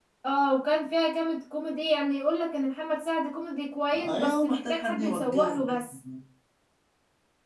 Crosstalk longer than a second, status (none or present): present